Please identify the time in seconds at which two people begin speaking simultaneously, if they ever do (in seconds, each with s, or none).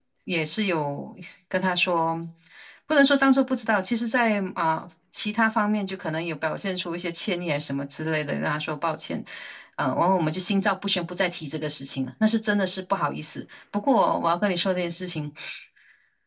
none